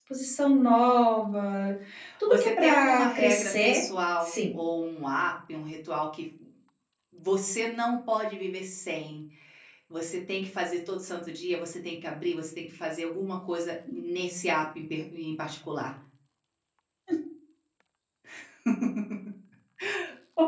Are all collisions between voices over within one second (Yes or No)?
No